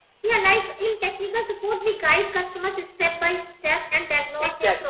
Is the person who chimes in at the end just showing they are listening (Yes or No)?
Yes